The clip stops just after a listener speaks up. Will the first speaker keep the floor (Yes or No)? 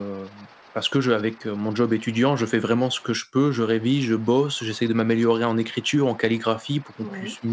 Yes